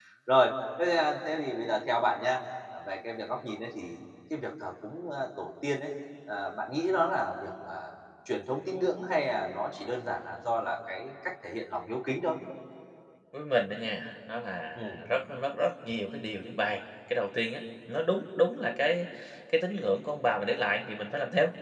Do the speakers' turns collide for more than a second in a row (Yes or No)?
No